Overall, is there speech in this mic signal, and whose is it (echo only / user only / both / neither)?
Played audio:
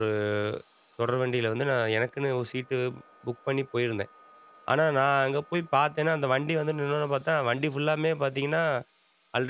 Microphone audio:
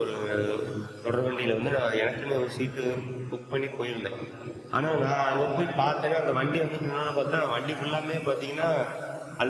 echo only